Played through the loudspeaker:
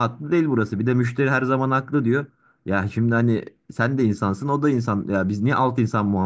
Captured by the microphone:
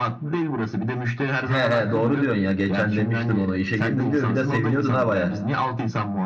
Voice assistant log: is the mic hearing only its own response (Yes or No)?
No